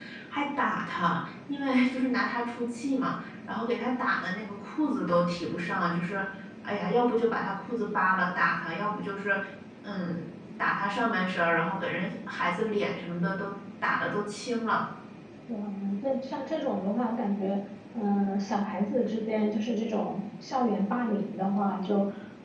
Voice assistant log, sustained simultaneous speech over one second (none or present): none